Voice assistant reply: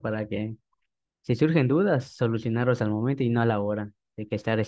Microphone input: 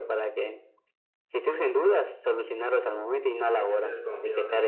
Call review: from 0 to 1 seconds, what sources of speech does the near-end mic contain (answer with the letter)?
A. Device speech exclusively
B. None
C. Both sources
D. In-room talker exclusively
A